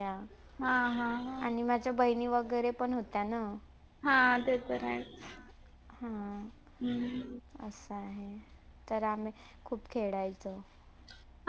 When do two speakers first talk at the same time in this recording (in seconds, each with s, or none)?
none